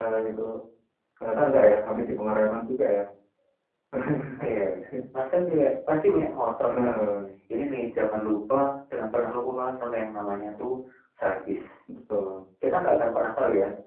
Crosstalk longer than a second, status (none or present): none